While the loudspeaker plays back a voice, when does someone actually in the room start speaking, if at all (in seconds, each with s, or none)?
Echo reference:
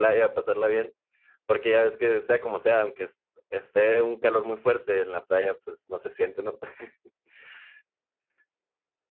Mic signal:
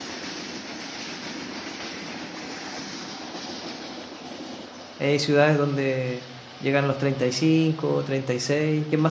5.0 s